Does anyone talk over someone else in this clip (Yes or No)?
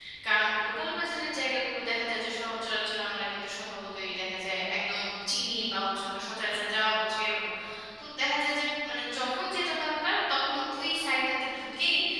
No